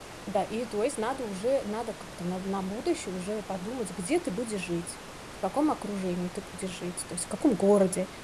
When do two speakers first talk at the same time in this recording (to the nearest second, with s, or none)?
none